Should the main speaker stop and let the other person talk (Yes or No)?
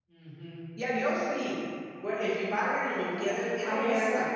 Yes